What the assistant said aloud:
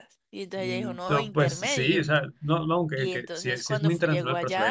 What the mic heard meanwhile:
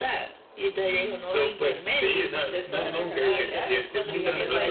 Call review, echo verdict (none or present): present